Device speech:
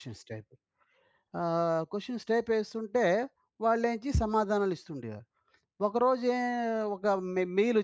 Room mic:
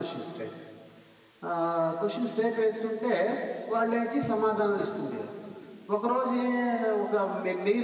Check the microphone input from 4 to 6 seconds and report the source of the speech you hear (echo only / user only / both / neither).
echo only